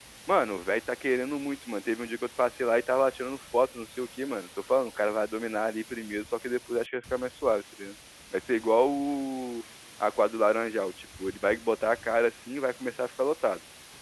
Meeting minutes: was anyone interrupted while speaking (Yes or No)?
No